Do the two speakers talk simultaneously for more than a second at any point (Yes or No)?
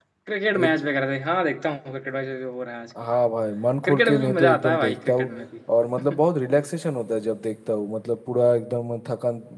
Yes